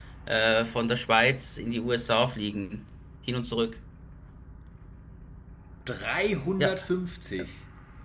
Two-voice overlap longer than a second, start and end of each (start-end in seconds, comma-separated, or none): none